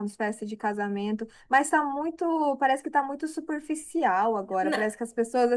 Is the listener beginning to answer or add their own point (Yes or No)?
No